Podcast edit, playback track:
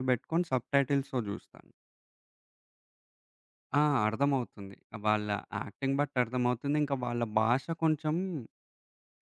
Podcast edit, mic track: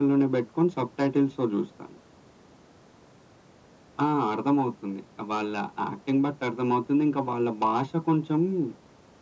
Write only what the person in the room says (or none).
none